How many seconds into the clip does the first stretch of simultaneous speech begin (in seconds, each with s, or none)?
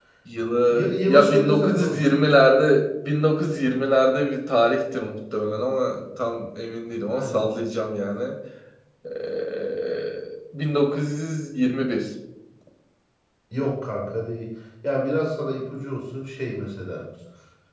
0.7 s